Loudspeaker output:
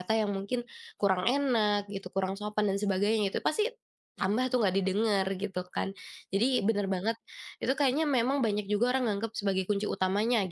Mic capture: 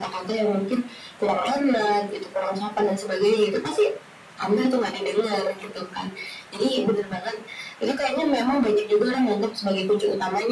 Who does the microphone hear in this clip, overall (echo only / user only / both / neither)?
echo only